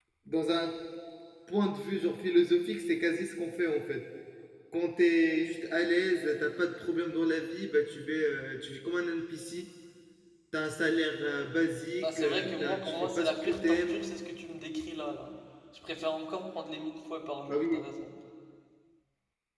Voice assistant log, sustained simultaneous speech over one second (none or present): present